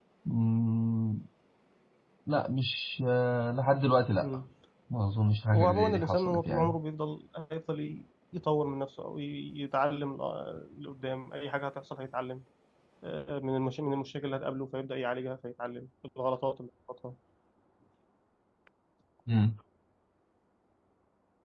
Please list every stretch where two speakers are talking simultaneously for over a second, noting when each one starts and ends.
5.5-6.8

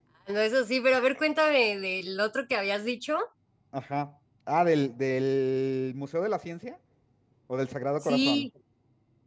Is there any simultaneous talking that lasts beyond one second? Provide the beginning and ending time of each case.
none

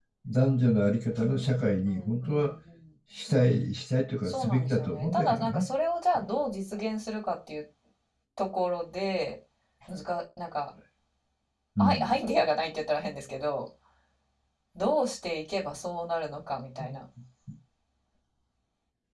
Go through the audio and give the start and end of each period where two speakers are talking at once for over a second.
1.2-2.5, 4.3-5.7

